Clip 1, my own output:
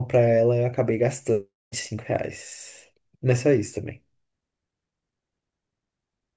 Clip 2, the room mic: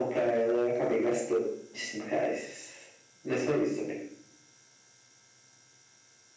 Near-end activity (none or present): none